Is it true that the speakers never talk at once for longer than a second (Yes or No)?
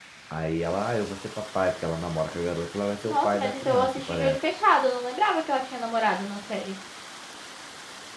No